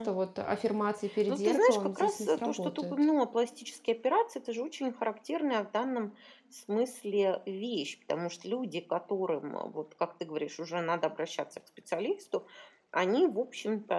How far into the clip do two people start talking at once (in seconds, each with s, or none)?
1.3 s